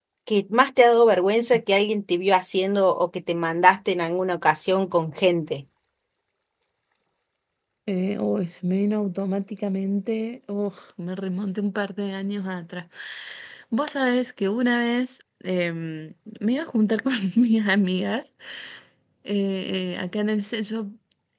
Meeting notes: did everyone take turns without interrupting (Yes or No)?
Yes